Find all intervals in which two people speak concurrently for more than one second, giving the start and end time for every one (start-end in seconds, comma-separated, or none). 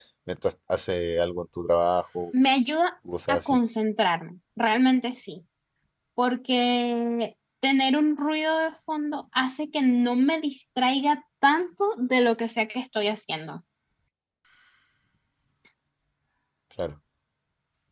none